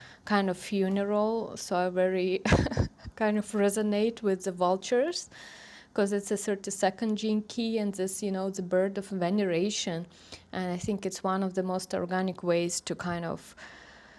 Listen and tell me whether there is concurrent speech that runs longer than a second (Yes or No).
No